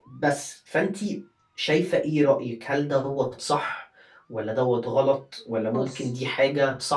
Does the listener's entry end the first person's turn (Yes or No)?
No